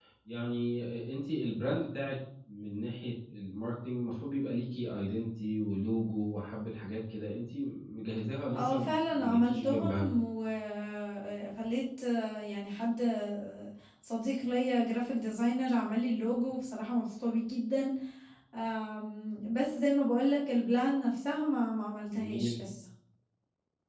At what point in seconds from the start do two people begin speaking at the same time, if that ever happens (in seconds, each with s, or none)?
8.5 s